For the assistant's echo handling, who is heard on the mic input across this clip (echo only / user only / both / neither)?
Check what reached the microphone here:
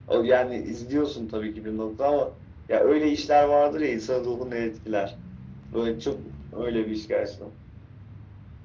echo only